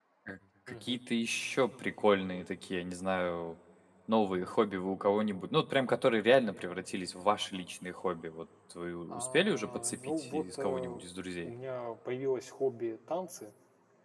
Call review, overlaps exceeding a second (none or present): present